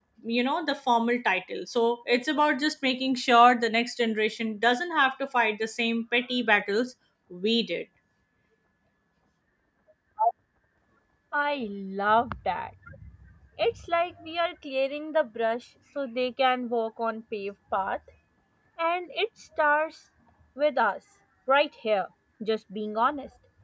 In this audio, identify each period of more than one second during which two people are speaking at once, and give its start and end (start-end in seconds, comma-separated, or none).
none